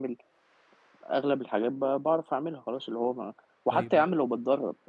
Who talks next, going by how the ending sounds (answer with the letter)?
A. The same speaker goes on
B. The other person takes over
A